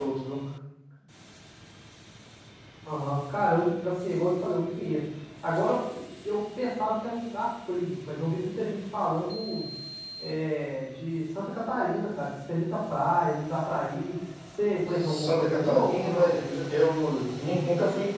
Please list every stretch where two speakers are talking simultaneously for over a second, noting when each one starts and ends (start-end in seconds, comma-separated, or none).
15.0-16.3